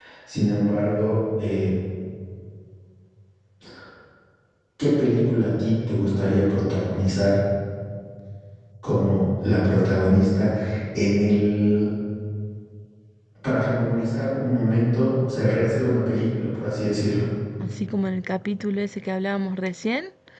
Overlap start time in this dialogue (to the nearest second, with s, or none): none